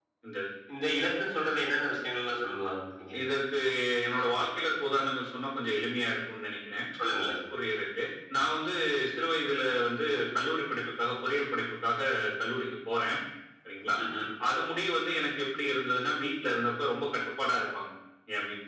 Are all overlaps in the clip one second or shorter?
Yes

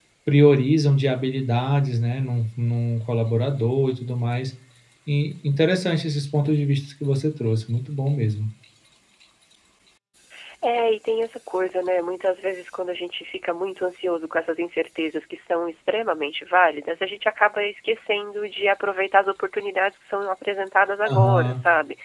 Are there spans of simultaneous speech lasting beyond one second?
No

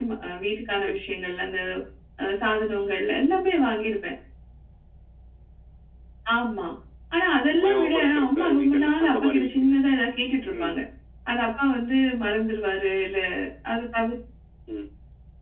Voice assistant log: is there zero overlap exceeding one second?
No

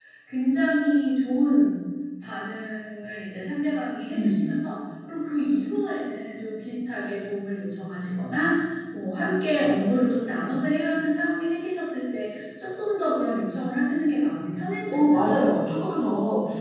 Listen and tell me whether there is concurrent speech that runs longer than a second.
No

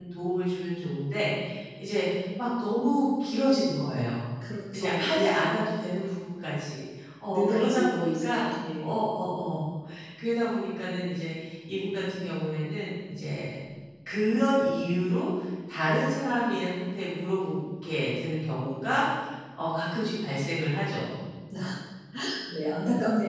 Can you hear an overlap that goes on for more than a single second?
Yes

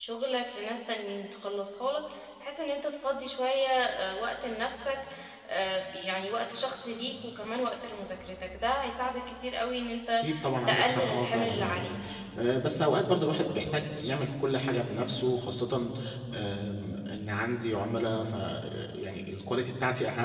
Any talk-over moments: Yes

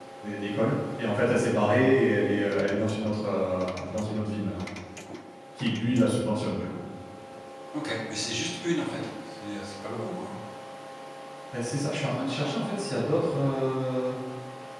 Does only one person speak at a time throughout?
Yes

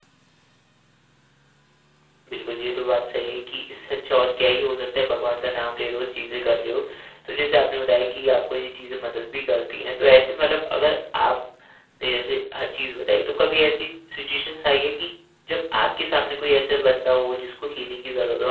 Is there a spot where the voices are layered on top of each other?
No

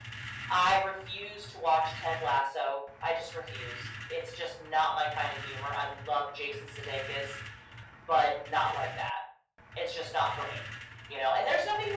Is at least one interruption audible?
No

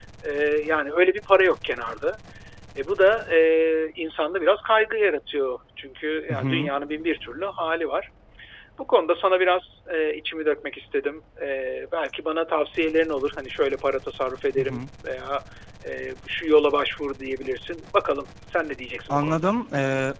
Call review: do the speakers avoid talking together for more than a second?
Yes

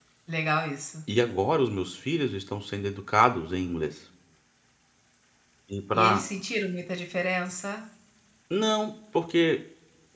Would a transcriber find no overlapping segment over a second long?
Yes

